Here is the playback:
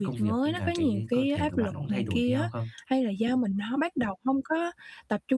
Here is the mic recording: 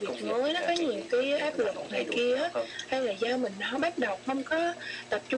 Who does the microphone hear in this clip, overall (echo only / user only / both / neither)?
echo only